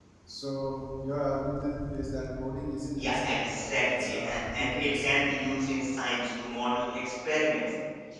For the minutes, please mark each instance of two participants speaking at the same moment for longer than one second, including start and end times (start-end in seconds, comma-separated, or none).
2.9-5.5